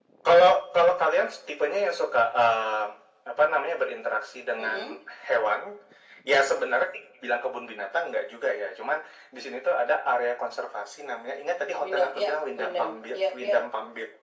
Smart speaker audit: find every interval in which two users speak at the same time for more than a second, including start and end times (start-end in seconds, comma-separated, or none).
11.8-13.6